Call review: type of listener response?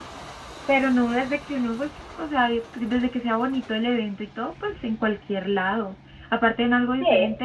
listening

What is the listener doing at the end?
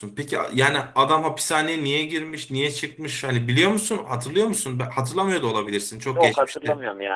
taking over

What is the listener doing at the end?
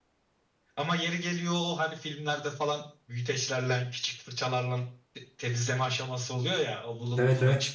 listening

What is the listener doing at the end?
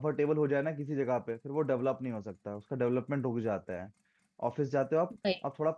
listening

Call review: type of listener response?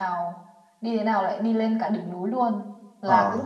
listening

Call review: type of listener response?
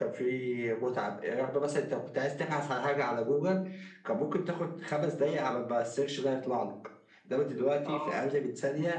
listening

